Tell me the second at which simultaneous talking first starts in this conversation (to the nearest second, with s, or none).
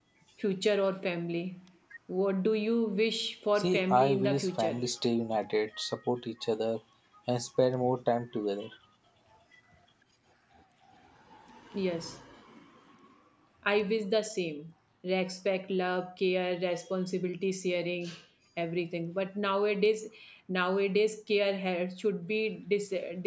4 s